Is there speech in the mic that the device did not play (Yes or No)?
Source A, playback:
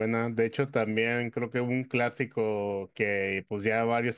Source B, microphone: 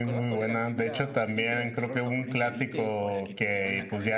Yes